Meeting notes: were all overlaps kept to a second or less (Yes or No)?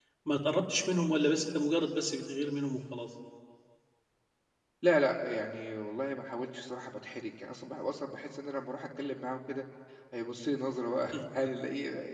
Yes